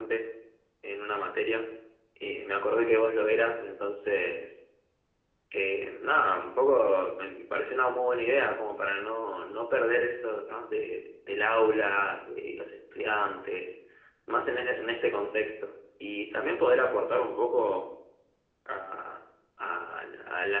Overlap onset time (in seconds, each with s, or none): none